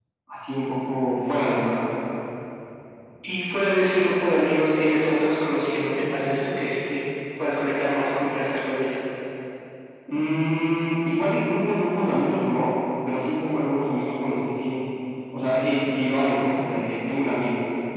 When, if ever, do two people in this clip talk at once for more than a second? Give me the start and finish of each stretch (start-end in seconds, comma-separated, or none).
none